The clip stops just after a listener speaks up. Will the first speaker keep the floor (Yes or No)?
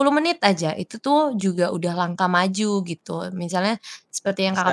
Yes